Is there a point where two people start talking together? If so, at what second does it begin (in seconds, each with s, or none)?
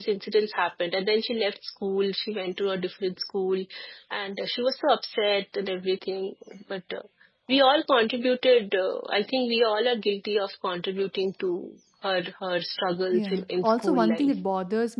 13.1 s